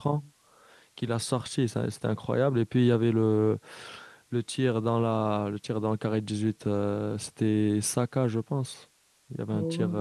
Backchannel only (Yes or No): No